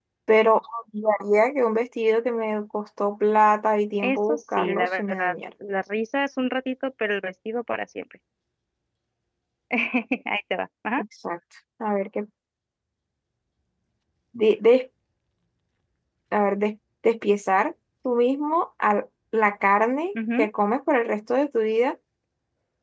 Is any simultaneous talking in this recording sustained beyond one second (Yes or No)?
Yes